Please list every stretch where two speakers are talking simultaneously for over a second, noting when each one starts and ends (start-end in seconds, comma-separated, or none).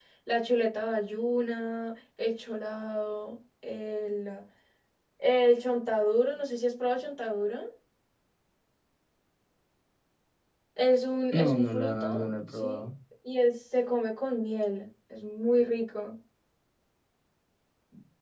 11.4-12.8